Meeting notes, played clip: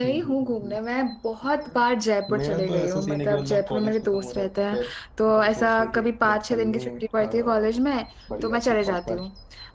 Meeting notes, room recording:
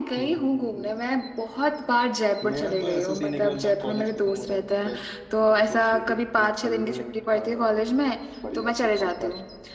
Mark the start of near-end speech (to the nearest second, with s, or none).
none